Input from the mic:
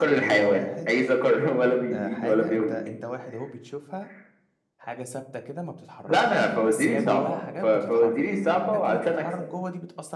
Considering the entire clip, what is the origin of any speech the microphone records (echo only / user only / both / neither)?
both